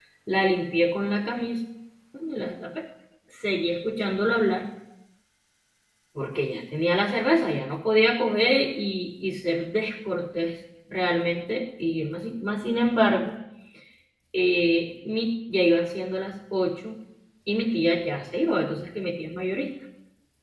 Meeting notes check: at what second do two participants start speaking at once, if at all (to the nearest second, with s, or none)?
none